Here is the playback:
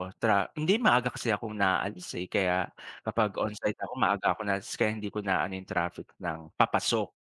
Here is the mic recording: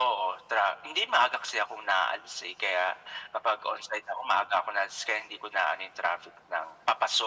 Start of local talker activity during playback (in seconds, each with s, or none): none